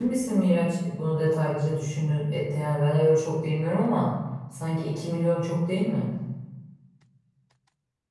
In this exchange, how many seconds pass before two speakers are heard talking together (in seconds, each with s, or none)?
none